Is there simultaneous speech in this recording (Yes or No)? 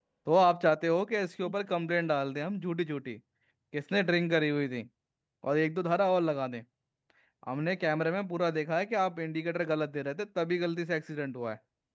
No